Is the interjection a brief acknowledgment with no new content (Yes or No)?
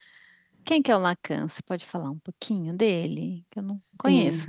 No